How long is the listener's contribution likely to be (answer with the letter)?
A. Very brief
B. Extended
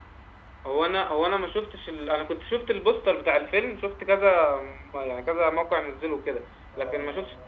A